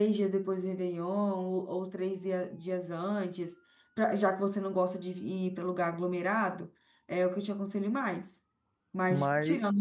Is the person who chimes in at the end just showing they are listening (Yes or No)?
Yes